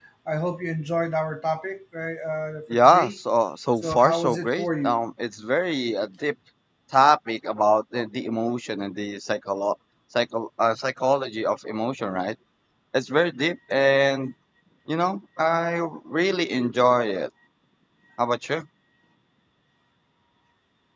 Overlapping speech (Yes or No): Yes